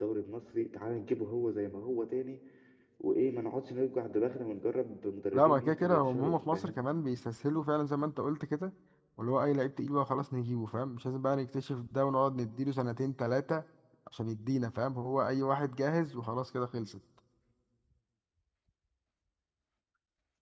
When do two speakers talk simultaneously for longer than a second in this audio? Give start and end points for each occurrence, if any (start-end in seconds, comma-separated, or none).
5.3-6.8